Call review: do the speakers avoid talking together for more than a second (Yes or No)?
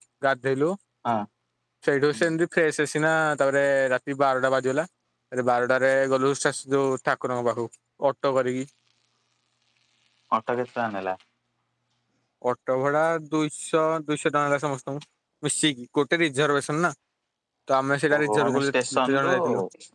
No